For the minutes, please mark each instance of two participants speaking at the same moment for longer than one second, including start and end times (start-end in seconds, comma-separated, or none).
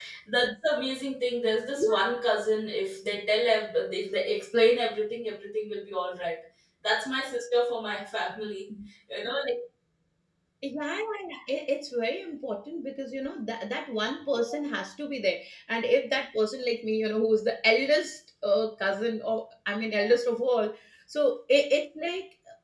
none